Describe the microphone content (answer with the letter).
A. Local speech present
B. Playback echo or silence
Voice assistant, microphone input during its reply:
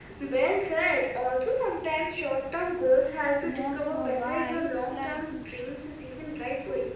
A